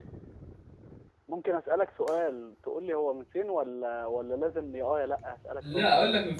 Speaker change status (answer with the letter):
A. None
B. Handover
B